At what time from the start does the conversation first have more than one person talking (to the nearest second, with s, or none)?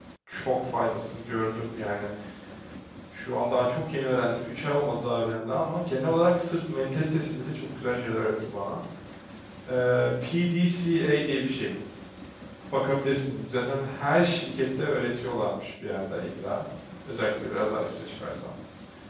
none